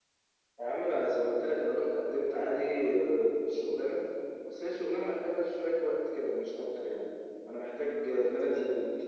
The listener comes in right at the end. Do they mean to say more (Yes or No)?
No